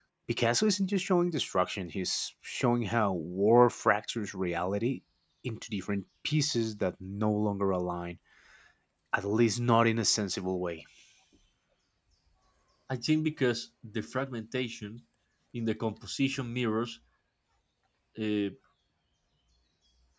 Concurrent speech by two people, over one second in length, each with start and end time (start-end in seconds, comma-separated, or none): none